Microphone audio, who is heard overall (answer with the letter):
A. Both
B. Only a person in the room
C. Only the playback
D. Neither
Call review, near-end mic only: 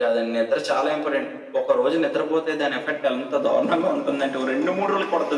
C